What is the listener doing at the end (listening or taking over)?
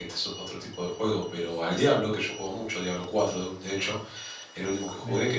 listening